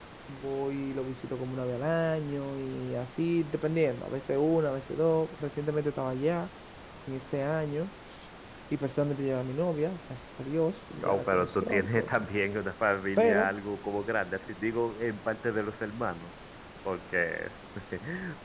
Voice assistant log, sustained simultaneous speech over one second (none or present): present